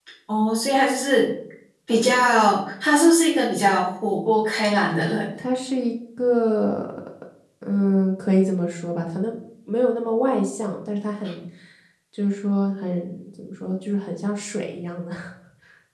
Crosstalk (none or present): none